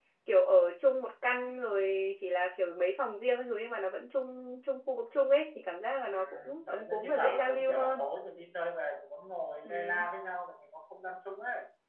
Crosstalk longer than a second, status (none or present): present